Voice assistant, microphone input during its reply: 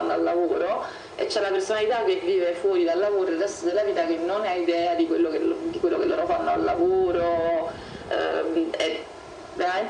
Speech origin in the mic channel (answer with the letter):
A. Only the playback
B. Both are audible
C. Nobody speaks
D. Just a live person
A